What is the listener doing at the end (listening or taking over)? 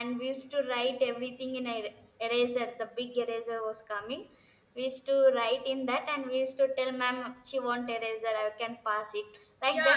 taking over